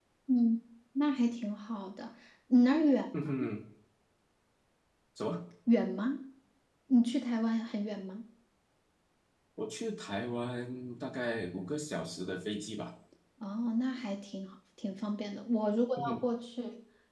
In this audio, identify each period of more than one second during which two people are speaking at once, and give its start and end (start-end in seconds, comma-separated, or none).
none